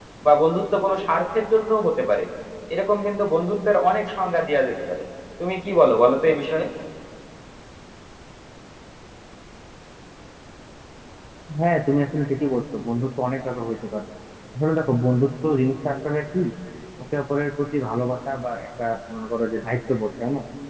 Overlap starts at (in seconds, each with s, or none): none